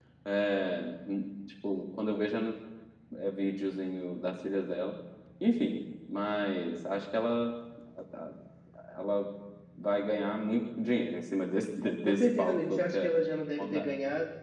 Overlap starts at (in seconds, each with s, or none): 11.8 s